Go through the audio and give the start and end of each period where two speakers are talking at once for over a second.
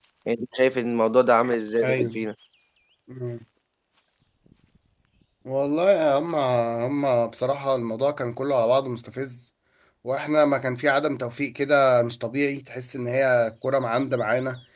none

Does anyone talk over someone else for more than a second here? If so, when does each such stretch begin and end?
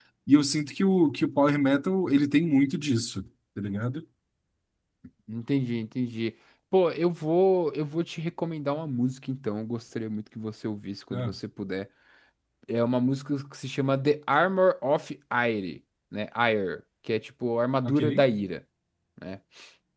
none

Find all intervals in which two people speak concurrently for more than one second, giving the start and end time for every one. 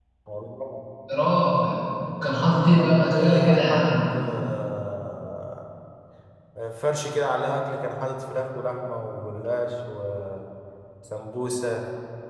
2.8-4.0

